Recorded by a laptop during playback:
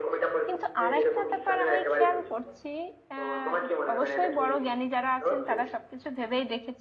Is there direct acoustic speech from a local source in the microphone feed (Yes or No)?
Yes